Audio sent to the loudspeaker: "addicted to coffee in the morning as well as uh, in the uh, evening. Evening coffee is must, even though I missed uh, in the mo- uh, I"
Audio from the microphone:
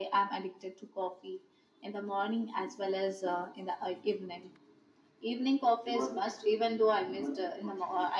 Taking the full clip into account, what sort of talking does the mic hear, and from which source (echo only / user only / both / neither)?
echo only